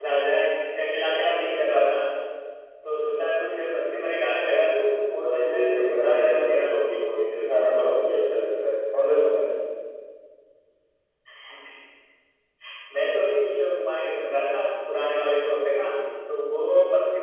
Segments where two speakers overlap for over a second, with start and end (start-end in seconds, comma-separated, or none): 5.2-6.7